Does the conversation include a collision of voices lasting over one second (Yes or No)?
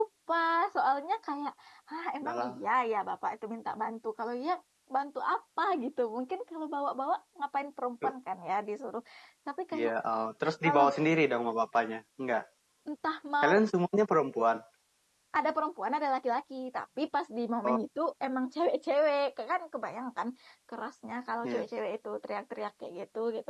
No